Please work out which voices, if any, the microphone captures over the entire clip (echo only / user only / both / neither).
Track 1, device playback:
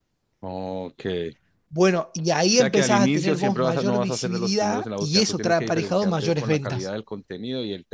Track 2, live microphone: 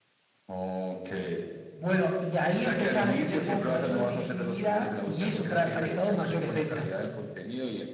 echo only